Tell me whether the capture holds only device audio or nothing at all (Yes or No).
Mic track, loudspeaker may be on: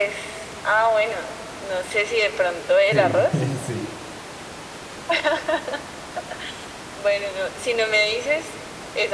No